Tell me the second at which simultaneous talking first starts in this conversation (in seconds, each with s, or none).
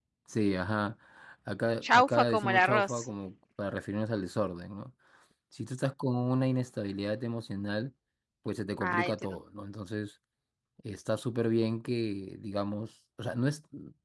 1.8 s